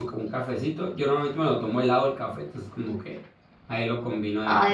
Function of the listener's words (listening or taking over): taking over